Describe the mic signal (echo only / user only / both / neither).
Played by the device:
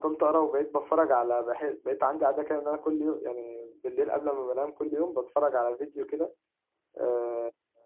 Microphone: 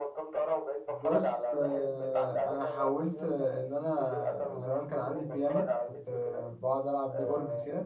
both